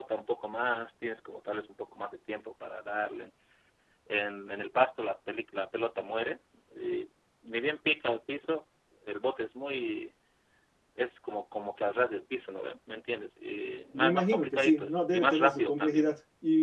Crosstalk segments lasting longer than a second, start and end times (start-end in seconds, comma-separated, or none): 13.9-16.1